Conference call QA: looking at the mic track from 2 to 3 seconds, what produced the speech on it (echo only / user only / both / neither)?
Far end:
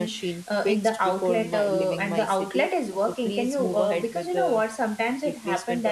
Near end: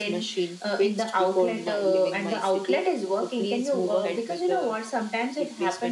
echo only